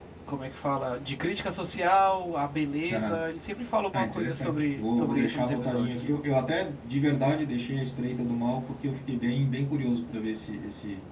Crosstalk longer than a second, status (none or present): present